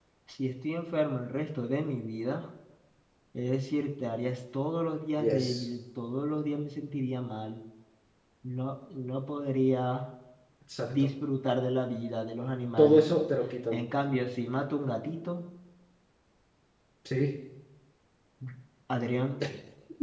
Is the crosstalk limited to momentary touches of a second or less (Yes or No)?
Yes